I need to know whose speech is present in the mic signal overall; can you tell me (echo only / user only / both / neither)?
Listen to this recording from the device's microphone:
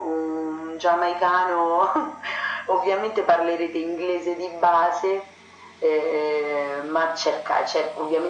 echo only